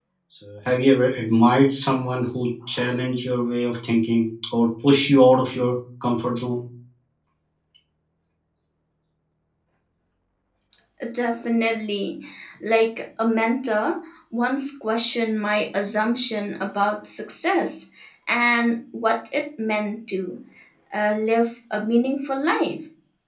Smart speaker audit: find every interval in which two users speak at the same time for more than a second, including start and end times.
none

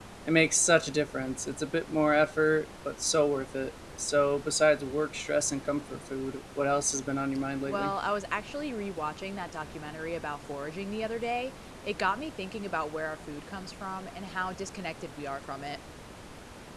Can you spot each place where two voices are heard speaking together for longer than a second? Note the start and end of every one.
none

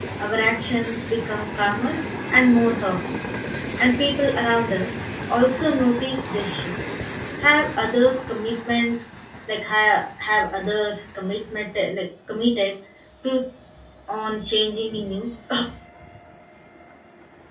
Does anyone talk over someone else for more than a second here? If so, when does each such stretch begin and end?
none

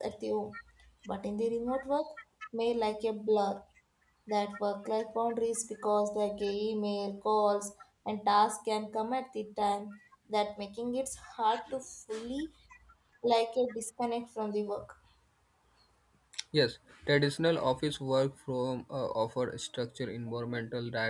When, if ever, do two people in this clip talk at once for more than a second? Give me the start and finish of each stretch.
none

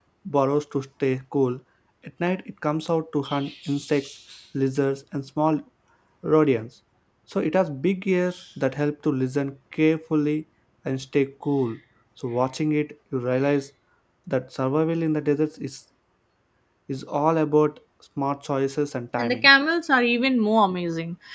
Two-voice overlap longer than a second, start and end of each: none

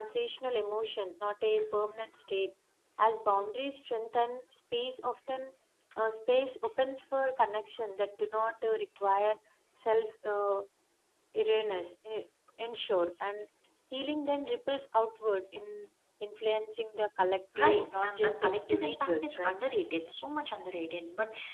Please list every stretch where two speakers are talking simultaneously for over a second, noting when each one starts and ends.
17.6-19.6

